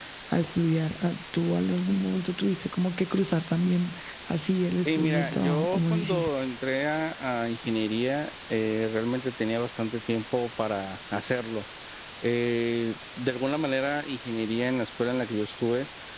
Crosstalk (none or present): present